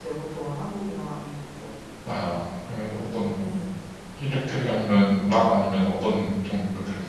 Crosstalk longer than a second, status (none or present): none